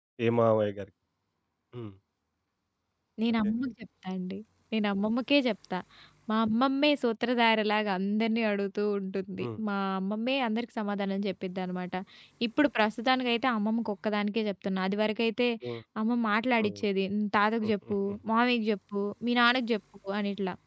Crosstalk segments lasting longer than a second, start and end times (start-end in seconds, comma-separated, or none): none